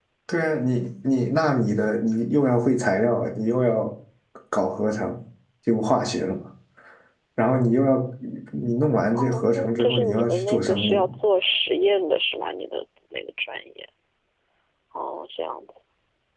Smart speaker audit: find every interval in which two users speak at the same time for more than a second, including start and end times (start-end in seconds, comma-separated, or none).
9.2-11.1